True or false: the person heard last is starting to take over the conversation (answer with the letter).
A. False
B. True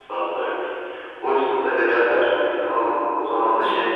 A